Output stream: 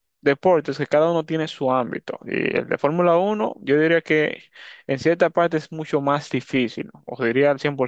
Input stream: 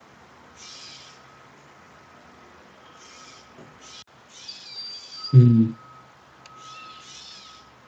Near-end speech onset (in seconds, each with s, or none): 5.3 s